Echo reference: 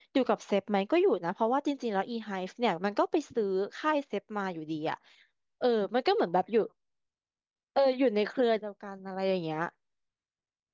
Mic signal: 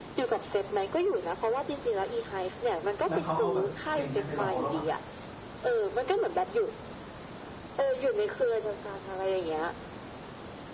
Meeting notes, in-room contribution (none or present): present